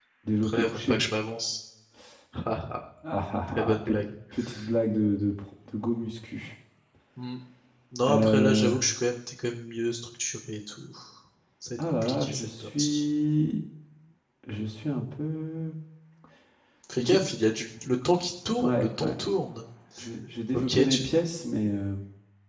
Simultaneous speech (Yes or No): Yes